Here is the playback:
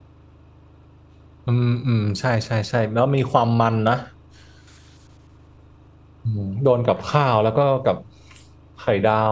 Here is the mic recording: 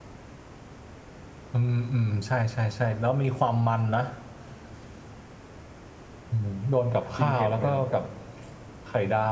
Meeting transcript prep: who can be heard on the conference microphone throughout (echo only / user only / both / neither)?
both